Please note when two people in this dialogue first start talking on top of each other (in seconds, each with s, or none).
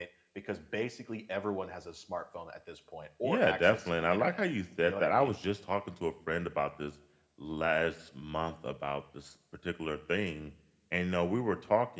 3.2 s